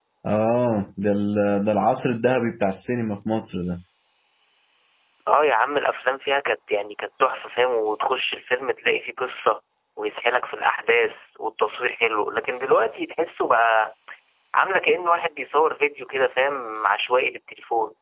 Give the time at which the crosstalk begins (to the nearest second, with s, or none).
none